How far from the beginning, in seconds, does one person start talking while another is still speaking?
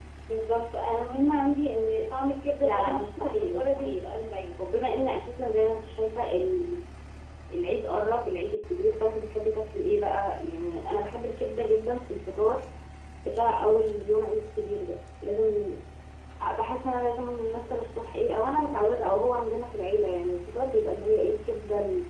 3 s

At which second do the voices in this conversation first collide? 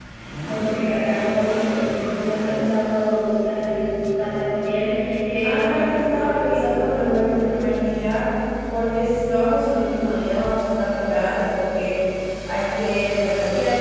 5 s

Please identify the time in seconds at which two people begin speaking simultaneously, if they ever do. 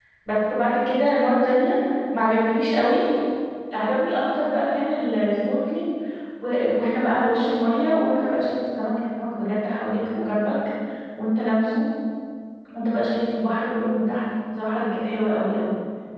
none

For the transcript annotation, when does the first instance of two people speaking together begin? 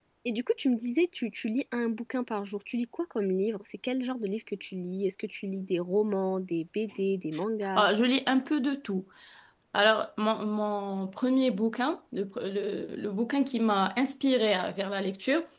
none

